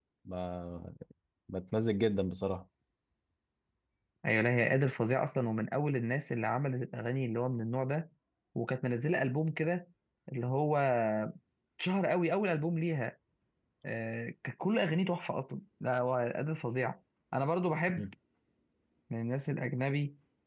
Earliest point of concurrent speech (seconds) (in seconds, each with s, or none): none